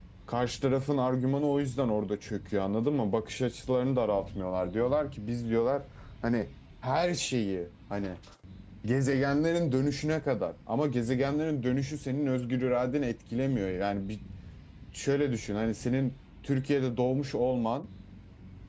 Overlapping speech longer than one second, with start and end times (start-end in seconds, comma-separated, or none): none